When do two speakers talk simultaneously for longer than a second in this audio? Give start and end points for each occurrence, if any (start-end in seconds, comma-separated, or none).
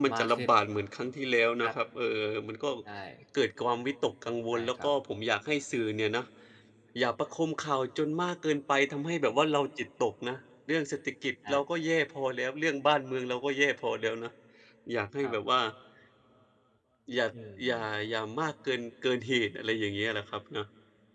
none